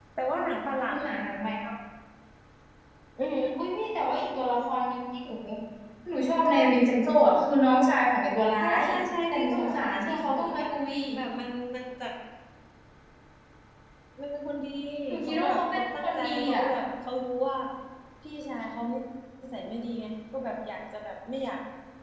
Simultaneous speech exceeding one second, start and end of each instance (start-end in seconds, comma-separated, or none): 9.3-10.6, 15.2-16.6